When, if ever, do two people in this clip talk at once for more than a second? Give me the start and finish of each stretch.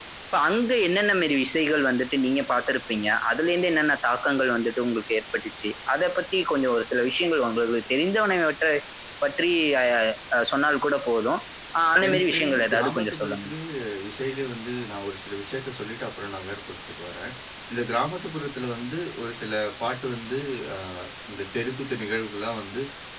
12.1-13.5

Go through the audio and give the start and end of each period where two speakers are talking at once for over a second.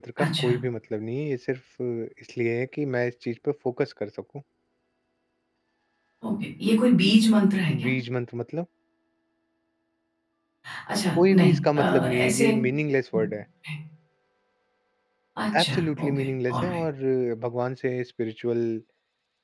11.3-12.5, 15.6-16.8

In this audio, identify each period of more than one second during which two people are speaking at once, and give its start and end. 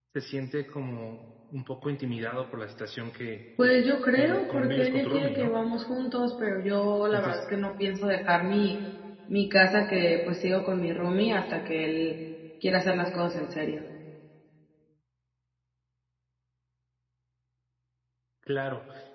4.2-5.5

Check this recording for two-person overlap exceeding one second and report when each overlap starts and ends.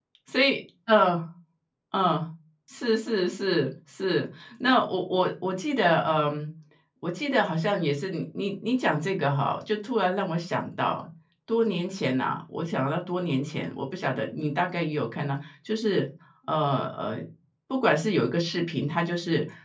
none

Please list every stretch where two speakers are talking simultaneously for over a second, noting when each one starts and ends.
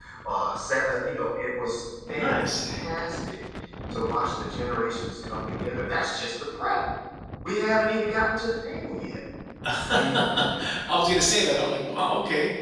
none

